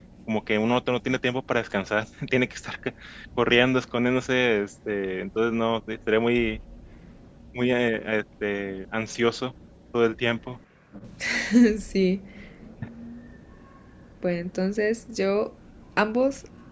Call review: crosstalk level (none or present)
none